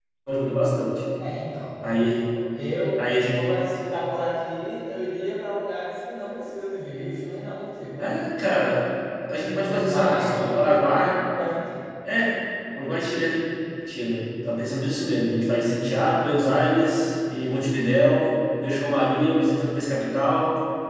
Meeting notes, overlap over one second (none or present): present